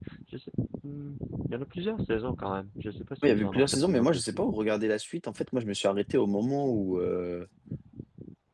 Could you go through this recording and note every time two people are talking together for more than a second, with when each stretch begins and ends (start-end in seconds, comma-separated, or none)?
3.2-4.4